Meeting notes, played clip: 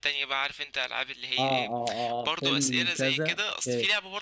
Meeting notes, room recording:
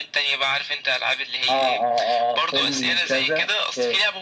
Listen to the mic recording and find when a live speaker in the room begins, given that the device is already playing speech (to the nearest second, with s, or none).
none